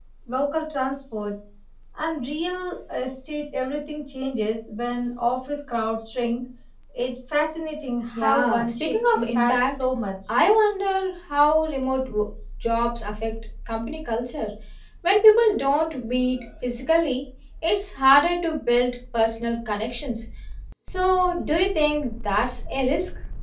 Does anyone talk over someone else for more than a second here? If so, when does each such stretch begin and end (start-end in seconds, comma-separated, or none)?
8.1-9.7